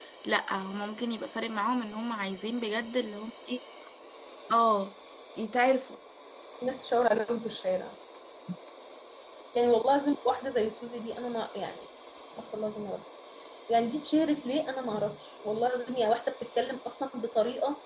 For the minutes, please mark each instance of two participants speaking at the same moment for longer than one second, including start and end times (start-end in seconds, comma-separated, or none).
none